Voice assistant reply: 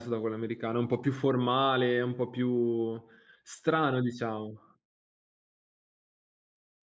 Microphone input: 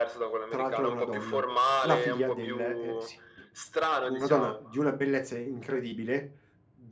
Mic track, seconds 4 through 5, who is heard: both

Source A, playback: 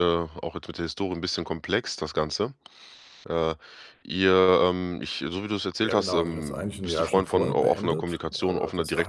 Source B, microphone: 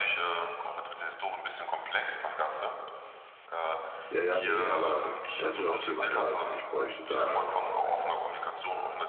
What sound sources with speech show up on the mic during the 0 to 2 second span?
echo only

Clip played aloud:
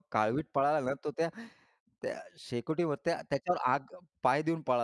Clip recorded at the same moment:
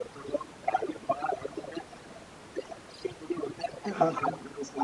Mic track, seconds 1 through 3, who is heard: echo only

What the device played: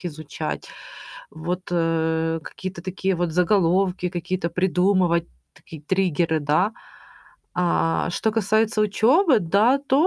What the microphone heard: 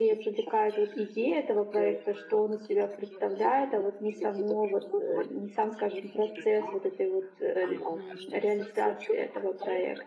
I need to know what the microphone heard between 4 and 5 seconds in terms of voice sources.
both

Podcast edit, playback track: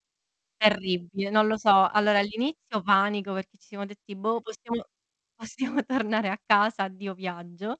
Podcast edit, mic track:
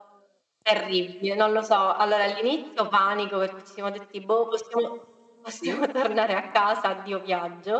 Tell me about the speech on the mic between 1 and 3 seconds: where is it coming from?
echo only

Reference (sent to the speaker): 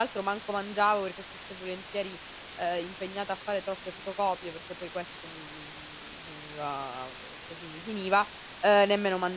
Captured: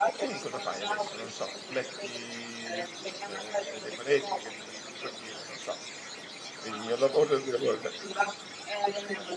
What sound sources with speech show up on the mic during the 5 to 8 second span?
both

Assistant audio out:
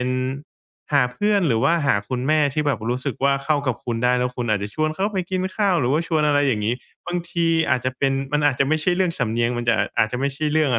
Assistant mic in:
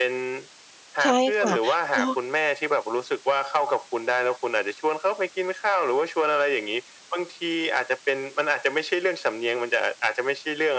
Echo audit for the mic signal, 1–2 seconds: both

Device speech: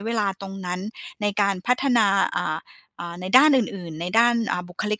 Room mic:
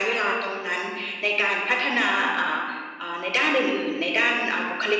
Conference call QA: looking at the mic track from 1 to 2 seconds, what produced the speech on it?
echo only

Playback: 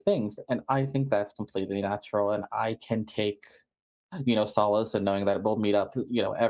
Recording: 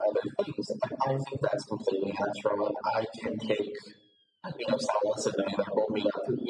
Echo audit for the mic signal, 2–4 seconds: echo only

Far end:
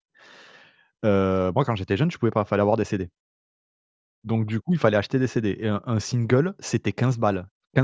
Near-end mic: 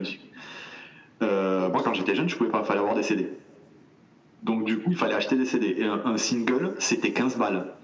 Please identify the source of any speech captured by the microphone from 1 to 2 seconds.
both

